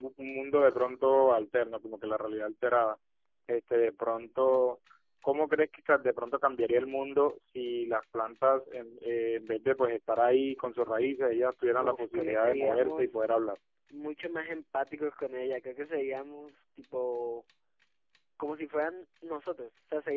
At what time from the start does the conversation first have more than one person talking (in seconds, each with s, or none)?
11.8 s